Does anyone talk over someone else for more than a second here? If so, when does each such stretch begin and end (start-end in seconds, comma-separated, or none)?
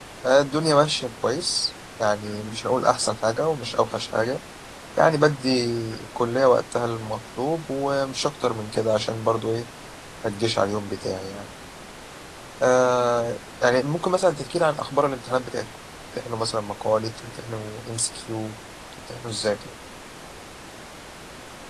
none